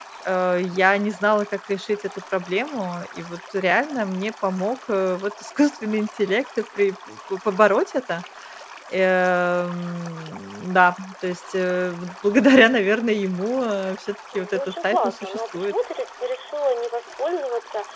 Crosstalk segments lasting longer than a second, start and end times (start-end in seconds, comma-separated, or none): 14.4-15.7